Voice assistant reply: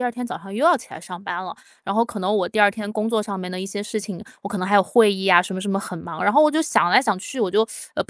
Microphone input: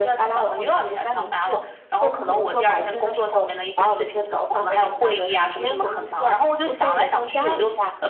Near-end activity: present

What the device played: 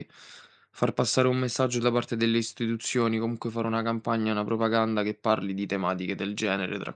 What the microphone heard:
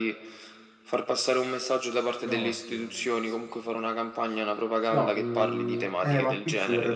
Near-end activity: present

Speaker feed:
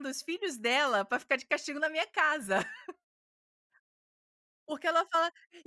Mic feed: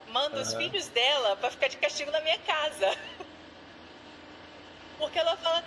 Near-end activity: present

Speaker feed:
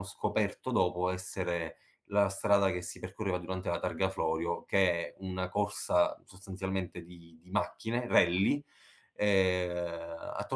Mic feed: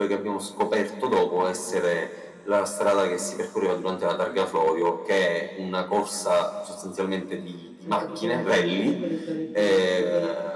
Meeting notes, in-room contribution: present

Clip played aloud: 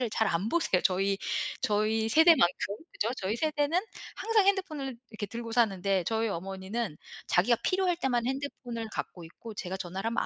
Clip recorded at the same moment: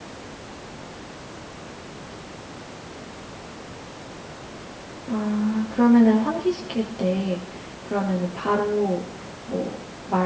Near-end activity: present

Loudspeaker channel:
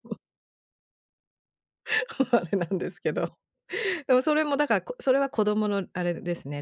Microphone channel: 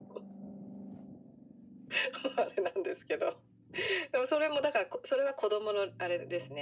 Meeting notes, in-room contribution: none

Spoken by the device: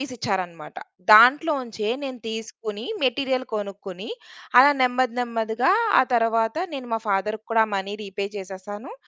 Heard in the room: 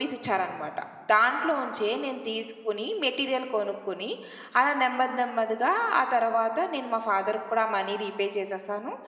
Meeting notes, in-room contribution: none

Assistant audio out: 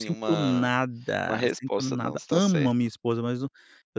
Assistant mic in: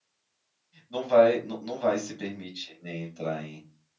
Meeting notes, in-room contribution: present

